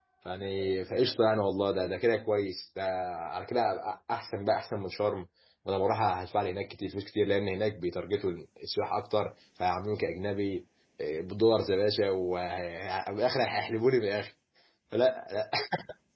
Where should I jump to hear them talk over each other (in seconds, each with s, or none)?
none